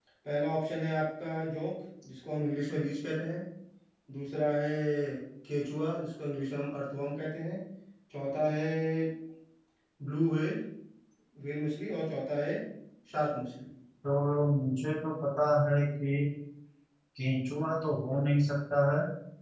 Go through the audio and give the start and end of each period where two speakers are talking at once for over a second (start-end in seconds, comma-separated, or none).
none